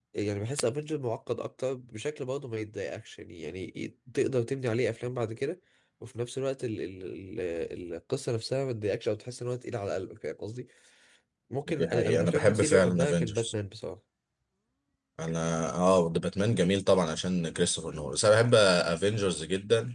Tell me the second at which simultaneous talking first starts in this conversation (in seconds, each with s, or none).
11.7 s